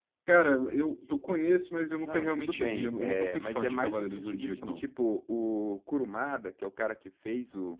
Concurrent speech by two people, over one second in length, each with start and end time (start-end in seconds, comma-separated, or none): 2.0-4.8